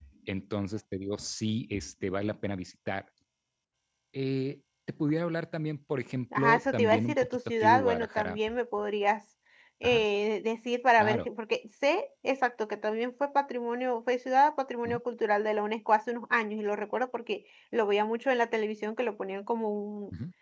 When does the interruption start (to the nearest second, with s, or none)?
6 s